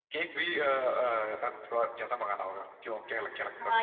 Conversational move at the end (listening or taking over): taking over